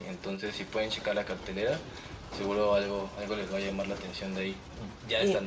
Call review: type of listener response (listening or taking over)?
taking over